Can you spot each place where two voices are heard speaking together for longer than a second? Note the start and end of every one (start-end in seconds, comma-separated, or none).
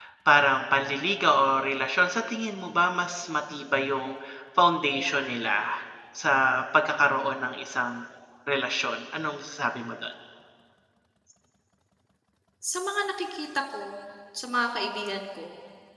none